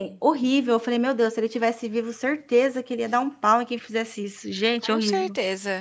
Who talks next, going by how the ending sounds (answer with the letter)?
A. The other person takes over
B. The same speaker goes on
A